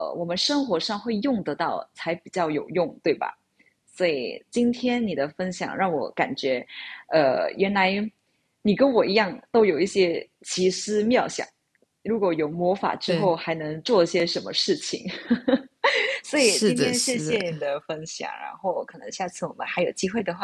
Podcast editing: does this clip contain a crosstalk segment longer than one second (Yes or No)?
Yes